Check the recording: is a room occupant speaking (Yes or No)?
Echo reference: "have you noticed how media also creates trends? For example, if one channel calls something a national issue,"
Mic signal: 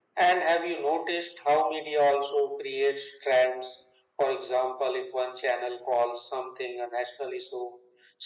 No